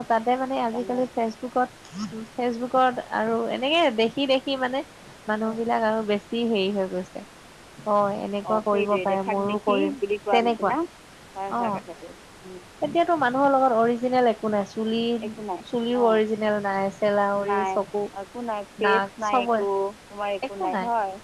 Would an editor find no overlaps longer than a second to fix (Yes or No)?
No